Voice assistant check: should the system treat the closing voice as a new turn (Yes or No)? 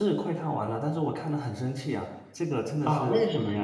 Yes